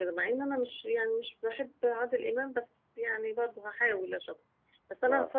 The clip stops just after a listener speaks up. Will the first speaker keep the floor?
Yes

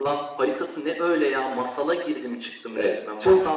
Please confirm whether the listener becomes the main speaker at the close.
Yes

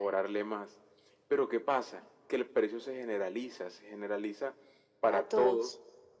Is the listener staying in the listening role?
Yes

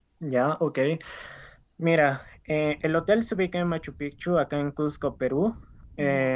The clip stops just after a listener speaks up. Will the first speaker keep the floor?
Yes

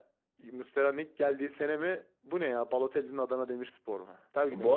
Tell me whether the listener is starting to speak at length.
Yes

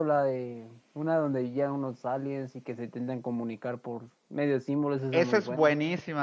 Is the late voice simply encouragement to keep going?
No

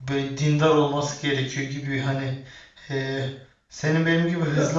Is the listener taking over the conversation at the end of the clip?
No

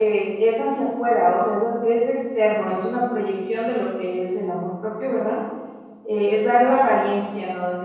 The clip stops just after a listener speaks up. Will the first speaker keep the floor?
Yes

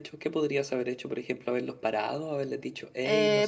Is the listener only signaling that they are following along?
No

